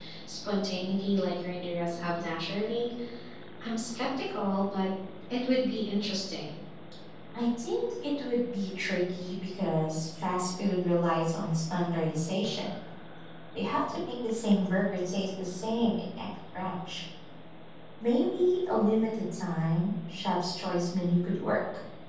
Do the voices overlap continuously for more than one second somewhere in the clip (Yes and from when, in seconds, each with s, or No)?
No